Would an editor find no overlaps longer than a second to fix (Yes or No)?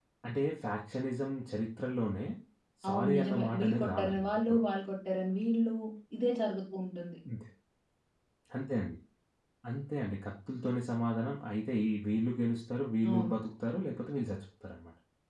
No